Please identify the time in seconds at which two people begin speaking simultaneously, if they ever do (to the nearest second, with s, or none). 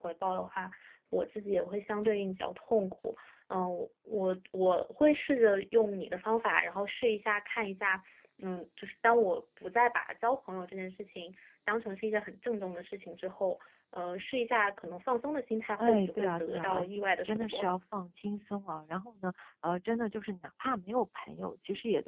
16 s